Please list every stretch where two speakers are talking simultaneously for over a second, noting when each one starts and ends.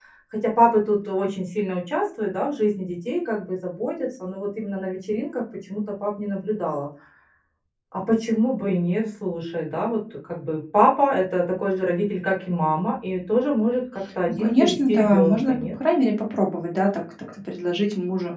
14.3-15.6

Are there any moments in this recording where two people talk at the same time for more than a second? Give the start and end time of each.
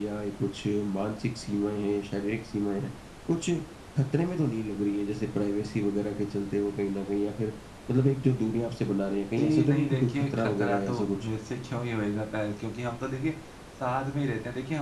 9.4-11.3

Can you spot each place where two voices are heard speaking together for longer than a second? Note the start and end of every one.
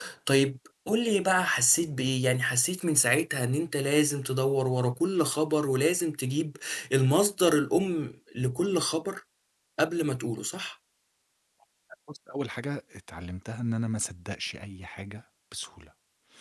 none

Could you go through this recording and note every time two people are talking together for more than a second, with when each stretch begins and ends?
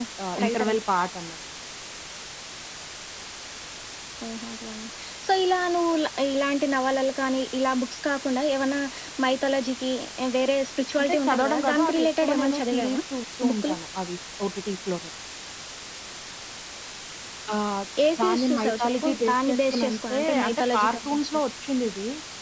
11.0-13.0, 18.2-21.4

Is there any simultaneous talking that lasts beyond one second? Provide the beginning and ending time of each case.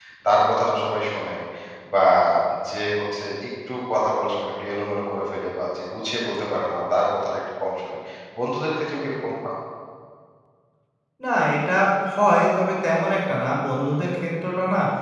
none

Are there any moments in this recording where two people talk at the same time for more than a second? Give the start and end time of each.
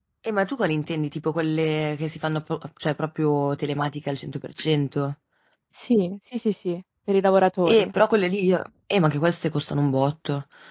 none

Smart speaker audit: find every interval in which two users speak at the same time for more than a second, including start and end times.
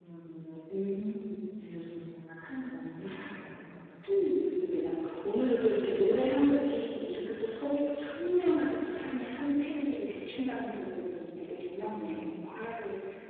none

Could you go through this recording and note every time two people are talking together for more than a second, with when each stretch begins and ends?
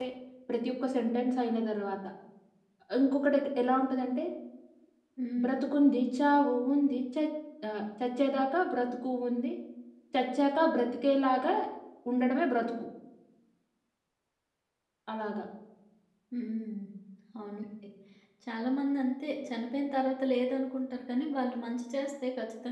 none

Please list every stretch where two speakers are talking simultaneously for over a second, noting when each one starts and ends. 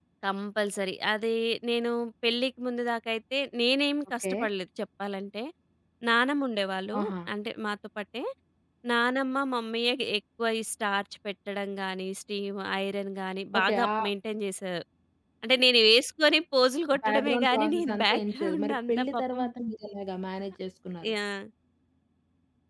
17.0-19.4

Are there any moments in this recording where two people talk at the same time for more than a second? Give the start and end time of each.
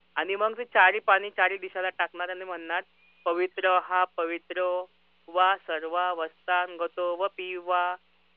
none

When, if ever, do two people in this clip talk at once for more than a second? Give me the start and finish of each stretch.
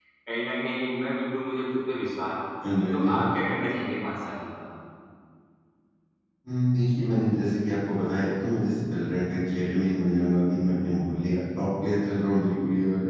none

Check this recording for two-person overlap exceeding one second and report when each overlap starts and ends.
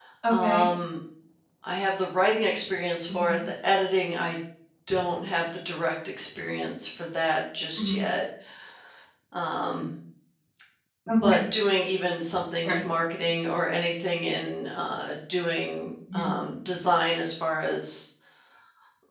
none

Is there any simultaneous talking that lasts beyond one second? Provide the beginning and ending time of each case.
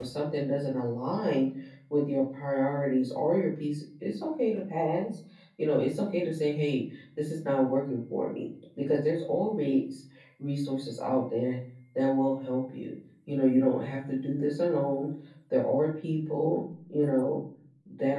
none

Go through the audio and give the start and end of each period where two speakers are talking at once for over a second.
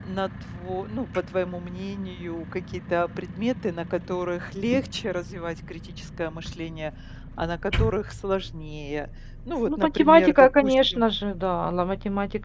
9.7-11.0

